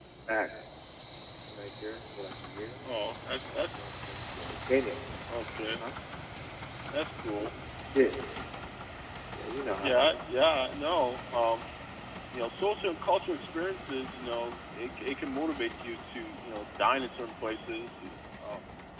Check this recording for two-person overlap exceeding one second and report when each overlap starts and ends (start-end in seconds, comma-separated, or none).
none